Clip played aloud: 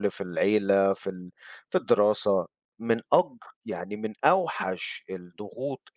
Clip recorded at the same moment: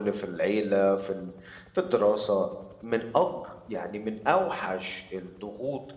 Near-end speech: none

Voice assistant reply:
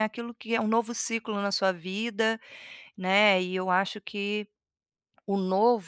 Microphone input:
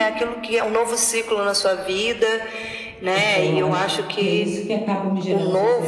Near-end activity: present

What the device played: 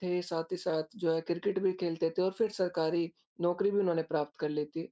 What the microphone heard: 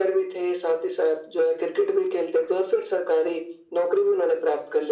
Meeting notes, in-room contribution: none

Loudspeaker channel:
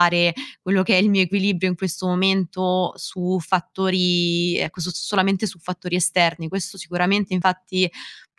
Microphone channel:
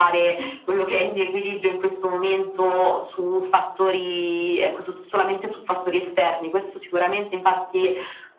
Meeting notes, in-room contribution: none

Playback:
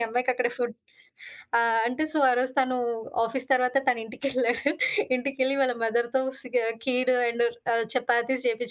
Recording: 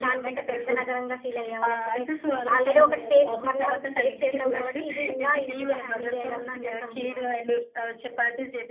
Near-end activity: present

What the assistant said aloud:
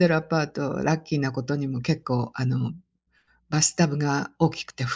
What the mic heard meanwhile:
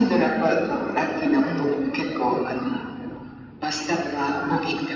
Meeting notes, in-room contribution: present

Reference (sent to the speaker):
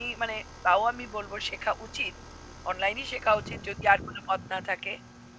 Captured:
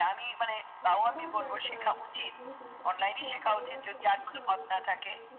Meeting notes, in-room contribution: present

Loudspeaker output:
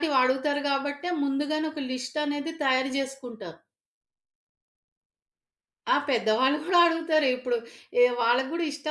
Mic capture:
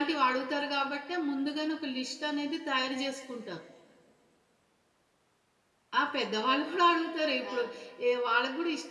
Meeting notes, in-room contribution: present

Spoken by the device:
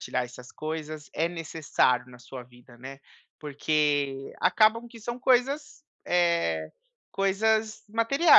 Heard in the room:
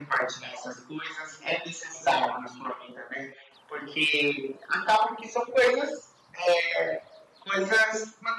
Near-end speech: none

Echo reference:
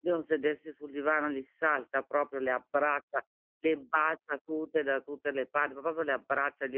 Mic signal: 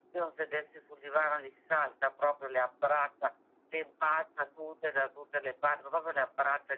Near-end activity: none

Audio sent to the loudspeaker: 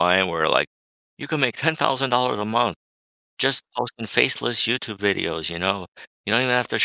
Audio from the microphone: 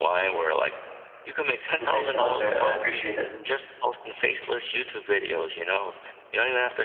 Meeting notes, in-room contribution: present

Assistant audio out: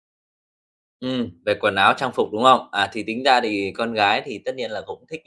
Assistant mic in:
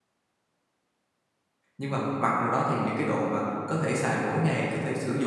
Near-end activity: present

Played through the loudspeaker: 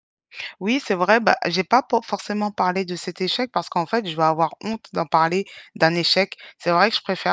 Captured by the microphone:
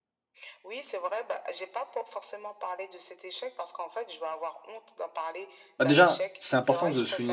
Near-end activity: present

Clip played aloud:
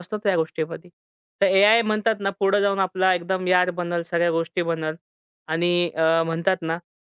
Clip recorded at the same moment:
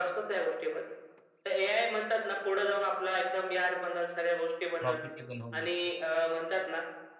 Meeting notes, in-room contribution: present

